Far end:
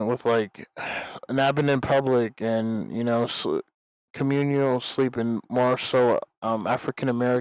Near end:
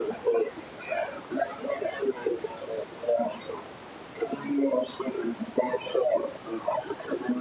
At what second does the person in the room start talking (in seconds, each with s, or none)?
none